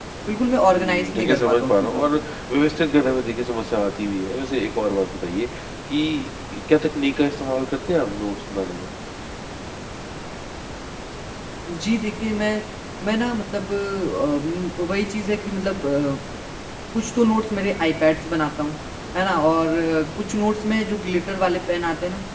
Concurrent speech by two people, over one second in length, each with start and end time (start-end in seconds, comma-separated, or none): 0.8-2.1